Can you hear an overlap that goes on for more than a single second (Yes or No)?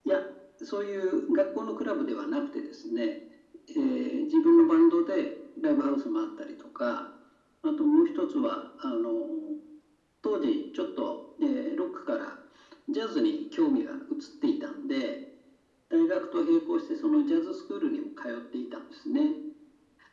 No